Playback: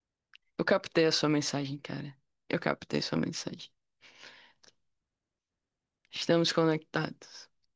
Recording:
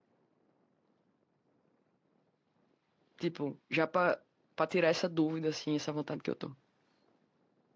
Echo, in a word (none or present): none